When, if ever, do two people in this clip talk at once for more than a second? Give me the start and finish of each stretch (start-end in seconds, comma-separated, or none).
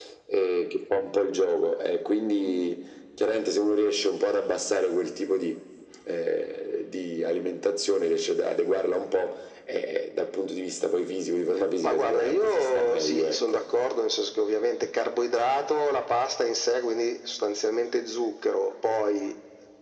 11.8-13.6